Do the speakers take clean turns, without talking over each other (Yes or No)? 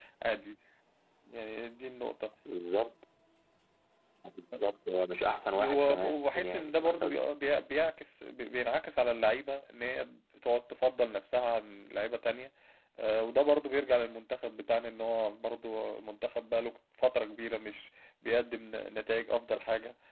No